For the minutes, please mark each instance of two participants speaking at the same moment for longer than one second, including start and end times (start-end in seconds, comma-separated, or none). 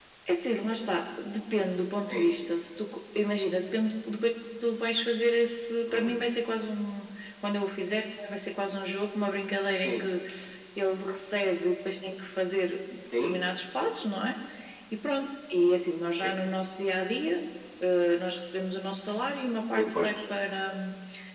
none